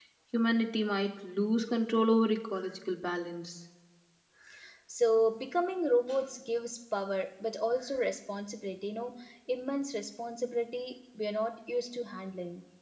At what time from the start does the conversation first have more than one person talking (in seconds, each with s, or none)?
none